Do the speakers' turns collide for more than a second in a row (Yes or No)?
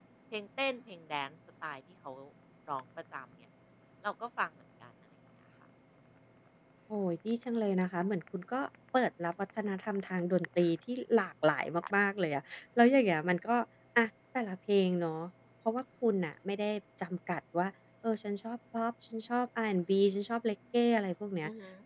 No